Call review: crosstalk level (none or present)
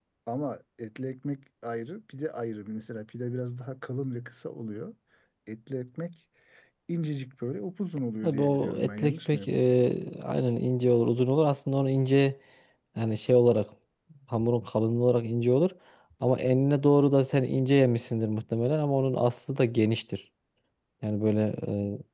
present